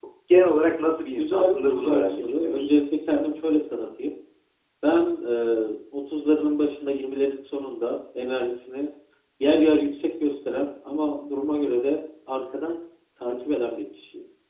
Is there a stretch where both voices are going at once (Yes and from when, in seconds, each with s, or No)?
Yes, from 1.2 s